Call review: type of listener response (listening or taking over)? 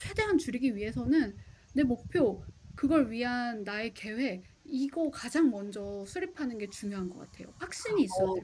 taking over